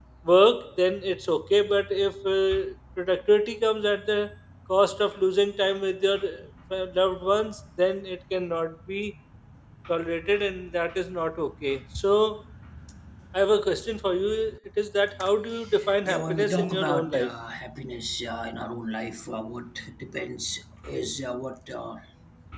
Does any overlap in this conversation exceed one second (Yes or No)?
Yes